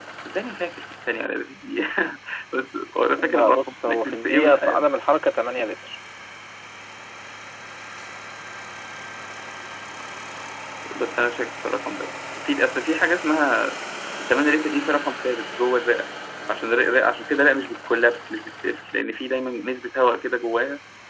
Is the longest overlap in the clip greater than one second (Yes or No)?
Yes